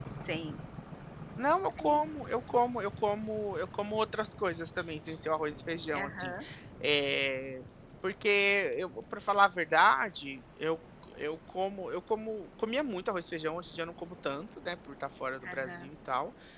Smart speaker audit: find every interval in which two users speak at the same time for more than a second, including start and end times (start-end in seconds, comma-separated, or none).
none